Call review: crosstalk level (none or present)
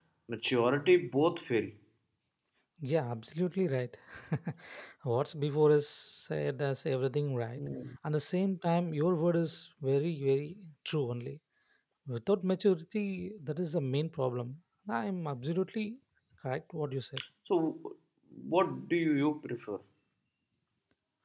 none